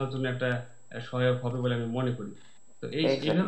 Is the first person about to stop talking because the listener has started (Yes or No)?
Yes